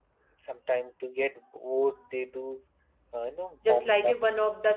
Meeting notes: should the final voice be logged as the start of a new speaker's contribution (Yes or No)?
Yes